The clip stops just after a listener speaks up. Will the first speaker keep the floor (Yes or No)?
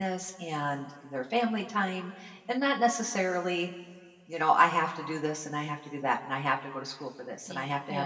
Yes